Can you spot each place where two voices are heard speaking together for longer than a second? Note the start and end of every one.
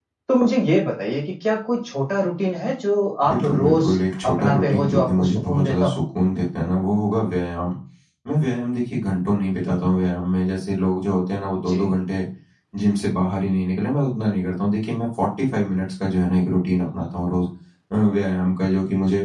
3.3-6.0

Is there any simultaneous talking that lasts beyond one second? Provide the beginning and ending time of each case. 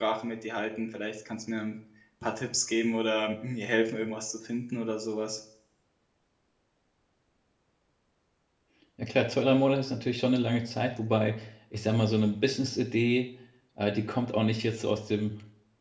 none

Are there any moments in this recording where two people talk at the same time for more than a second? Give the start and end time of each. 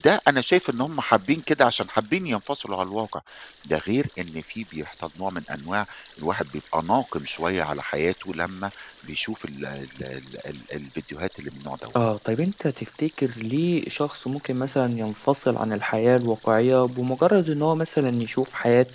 none

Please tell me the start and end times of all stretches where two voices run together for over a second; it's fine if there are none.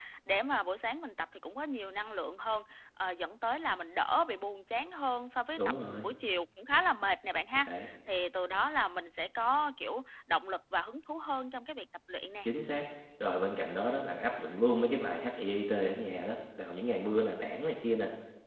none

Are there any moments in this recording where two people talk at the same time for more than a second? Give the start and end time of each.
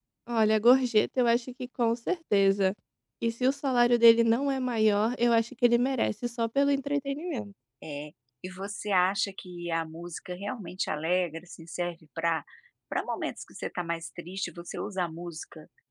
none

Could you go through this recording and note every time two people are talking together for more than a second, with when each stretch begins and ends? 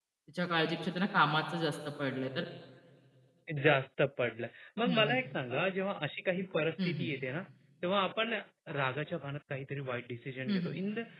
none

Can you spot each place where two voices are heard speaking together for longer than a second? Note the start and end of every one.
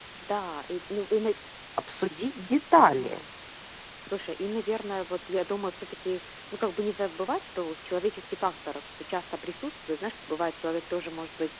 none

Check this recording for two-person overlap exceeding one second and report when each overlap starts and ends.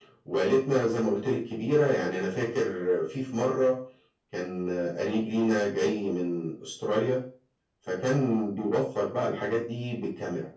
none

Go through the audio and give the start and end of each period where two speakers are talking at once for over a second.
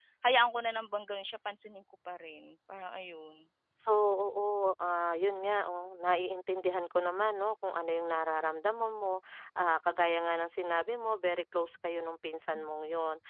none

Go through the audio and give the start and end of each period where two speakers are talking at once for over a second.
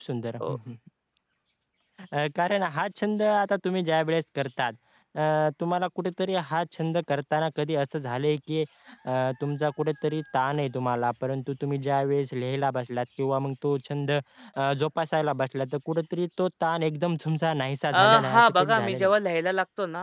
17.9-19.1

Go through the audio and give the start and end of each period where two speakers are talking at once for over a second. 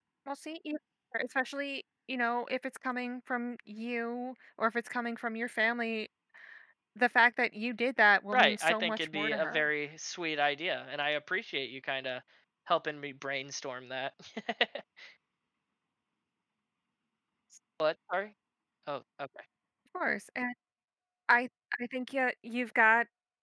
8.3-9.6

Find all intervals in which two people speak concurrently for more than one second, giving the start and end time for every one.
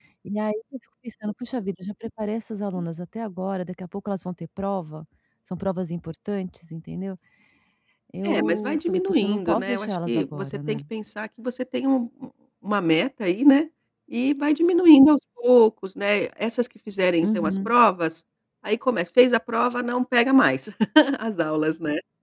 8.2-10.8

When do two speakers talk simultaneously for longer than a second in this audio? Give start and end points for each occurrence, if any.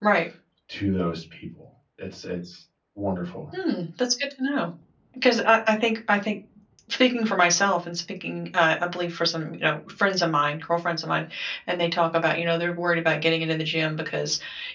none

